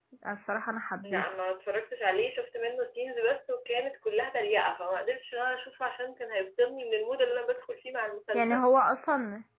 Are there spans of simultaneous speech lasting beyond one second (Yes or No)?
No